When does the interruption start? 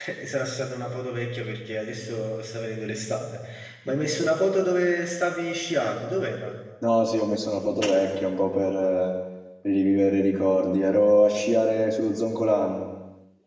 none

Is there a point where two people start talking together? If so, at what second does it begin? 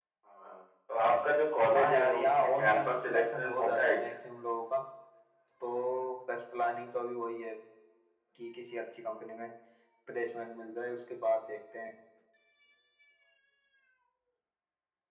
1.7 s

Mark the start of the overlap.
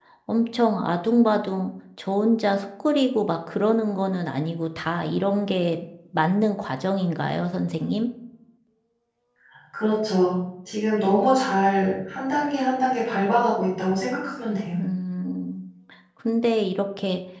none

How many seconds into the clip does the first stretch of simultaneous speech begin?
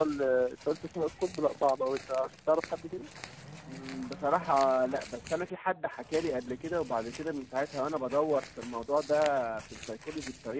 none

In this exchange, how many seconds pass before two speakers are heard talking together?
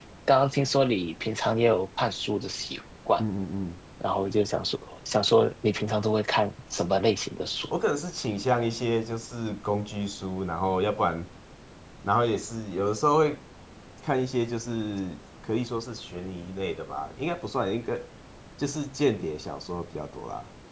none

